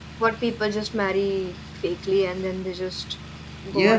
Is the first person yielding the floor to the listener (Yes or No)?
Yes